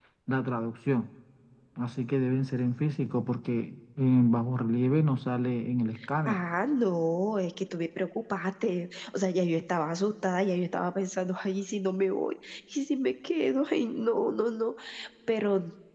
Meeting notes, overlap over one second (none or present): none